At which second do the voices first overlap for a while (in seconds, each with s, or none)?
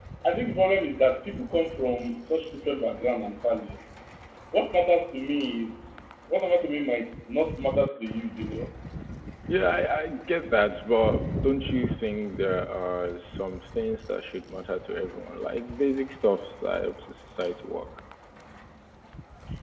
none